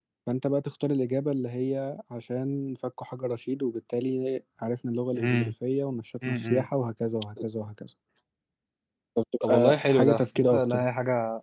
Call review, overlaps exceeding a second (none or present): present